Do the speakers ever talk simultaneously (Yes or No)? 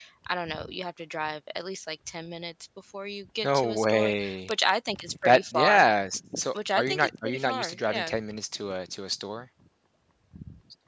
Yes